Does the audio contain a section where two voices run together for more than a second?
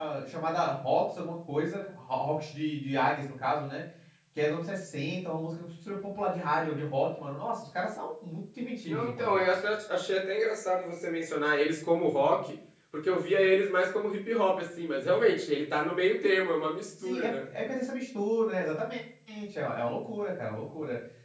No

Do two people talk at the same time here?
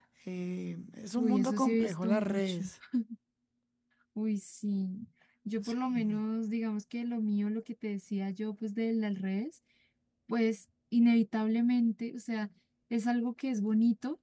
Yes, from 1.2 s

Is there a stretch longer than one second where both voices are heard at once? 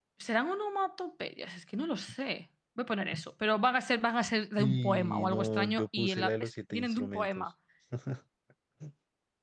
Yes, from 4.6 s

